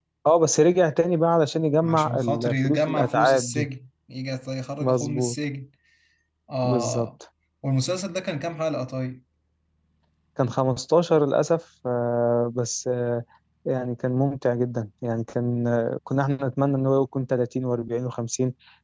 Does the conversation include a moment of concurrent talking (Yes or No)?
Yes